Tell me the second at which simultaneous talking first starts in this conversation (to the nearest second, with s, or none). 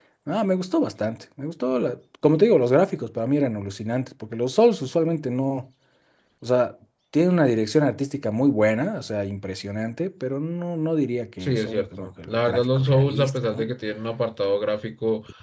11 s